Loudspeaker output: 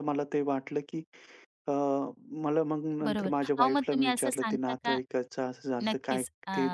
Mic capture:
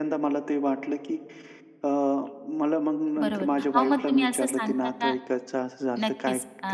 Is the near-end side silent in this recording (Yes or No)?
Yes